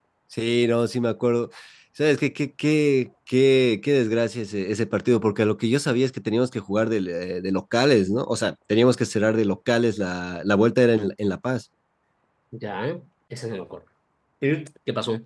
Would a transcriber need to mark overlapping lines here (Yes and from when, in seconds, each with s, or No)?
No